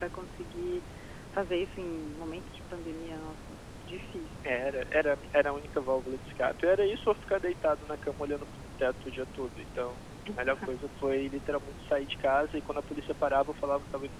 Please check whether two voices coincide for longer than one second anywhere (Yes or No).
No